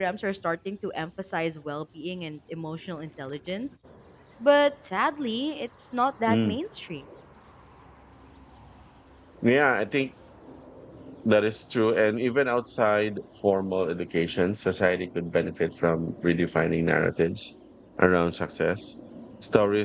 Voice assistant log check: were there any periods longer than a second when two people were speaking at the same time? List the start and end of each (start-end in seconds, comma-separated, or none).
none